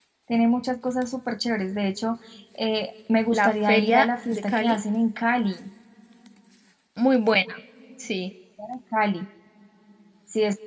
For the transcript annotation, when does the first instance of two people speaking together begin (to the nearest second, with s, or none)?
3 s